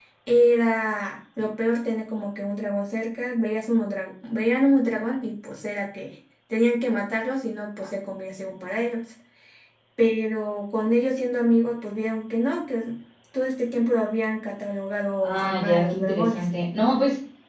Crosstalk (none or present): present